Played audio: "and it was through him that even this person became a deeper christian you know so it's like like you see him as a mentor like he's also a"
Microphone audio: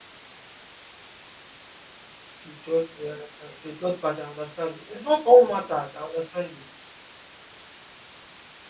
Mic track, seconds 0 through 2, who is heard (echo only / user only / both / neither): neither